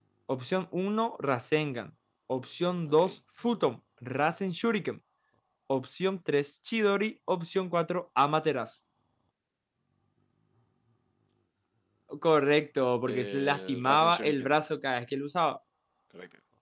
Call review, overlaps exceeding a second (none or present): present